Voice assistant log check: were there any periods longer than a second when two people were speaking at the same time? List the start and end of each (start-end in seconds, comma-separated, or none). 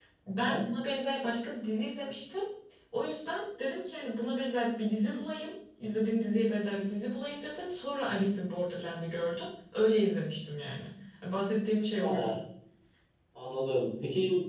none